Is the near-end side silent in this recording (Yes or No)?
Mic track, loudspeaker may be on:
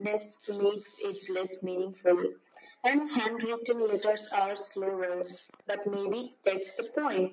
Yes